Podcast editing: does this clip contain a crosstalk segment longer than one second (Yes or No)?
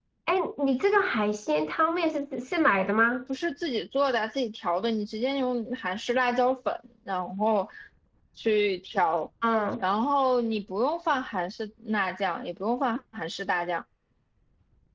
No